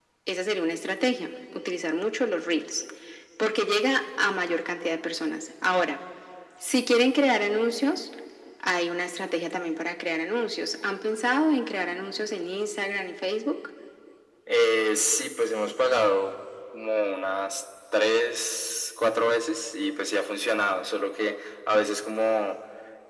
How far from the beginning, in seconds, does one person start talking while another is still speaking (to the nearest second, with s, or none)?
none